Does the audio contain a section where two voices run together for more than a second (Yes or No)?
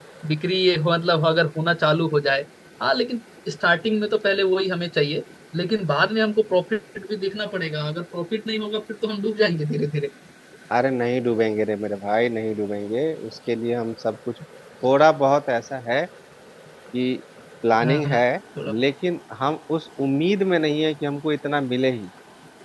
No